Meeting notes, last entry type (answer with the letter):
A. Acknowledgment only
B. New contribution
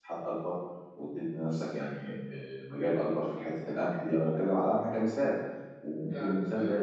A